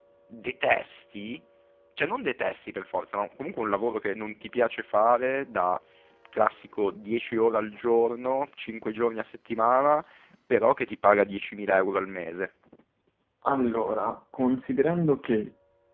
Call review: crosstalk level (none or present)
none